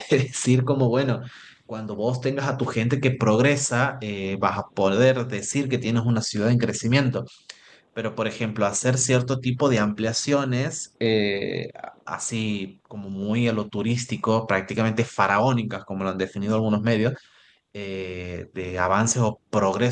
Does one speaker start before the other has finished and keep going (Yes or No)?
No